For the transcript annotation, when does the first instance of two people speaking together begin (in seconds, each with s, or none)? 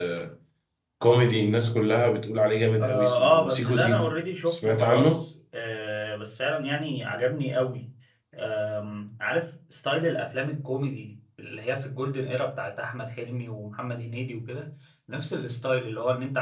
2.8 s